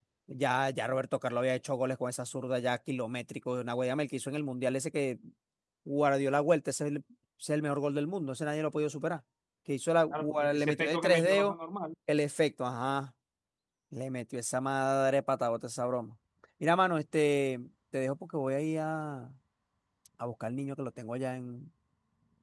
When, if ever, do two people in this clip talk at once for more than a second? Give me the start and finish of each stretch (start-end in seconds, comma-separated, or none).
10.1-11.5